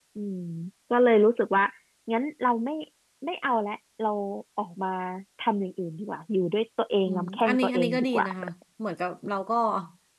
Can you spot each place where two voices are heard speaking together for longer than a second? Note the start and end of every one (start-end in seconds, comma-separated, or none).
7.1-8.3